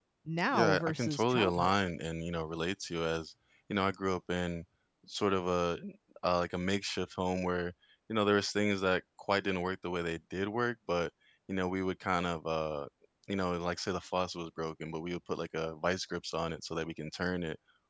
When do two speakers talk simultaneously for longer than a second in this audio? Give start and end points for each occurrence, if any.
0.5-1.7

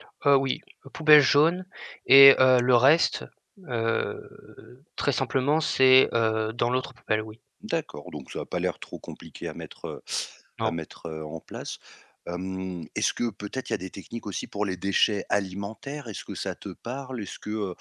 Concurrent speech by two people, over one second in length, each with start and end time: none

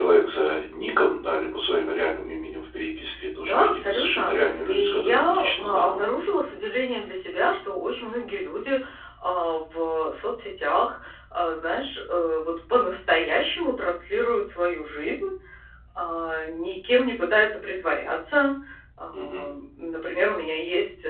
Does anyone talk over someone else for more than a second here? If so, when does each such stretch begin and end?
3.4-6.1

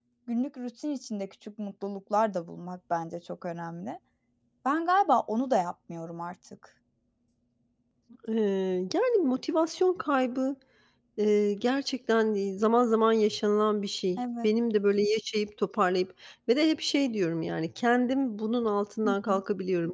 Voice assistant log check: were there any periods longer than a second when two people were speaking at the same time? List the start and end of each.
none

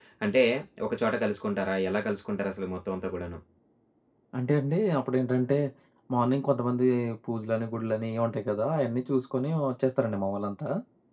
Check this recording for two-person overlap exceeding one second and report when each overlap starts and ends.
none

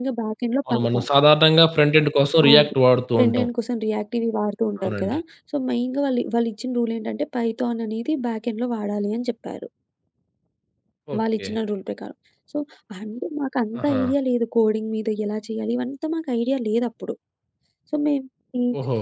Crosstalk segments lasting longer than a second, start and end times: none

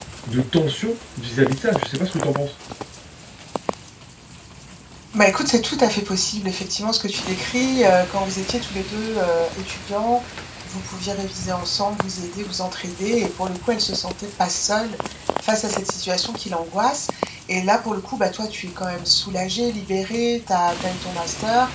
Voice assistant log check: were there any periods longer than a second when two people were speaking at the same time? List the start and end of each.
none

